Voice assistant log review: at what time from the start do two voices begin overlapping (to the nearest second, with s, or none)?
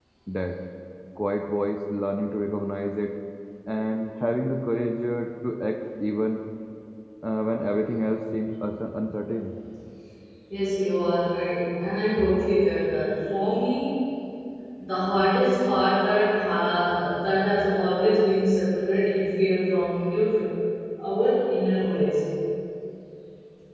none